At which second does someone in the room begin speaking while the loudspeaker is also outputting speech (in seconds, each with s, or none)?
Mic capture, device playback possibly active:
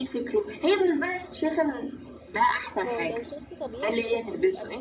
2.9 s